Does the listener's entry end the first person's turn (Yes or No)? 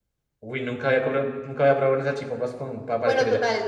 Yes